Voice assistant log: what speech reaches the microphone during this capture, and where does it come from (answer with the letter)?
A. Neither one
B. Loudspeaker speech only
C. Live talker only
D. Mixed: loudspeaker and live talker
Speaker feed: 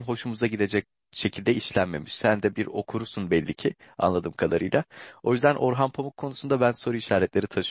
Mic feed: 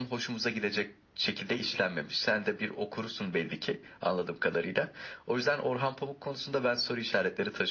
B